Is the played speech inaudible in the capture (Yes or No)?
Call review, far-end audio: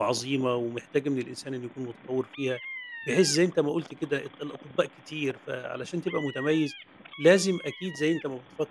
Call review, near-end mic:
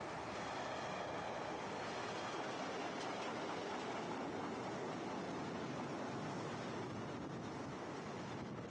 Yes